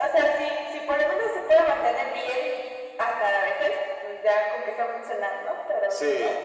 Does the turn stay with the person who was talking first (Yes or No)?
No